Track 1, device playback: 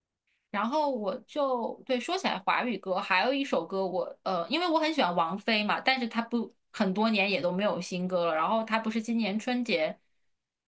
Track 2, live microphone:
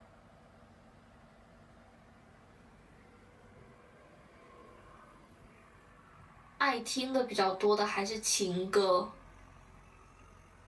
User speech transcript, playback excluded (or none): 爱听的比较多的还是情歌。